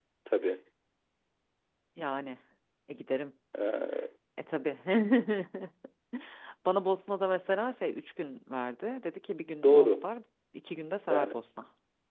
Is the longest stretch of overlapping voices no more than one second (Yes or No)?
Yes